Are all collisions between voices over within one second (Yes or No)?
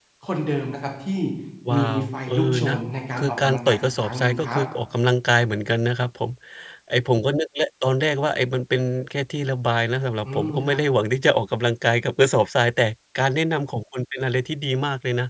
No